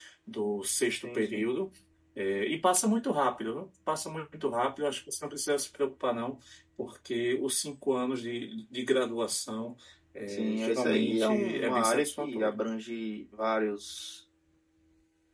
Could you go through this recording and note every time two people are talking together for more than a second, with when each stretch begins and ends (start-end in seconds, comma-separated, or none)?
10.3-12.7